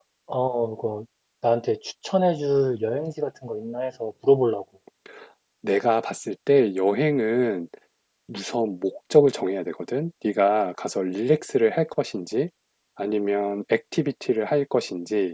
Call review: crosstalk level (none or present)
none